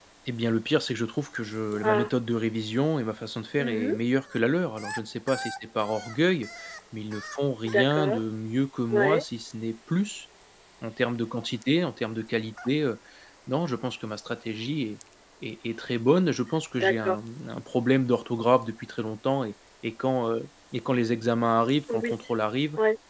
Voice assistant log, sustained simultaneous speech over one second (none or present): none